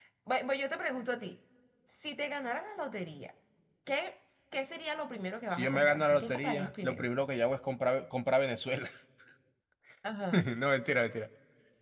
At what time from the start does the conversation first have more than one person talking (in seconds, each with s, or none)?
5.5 s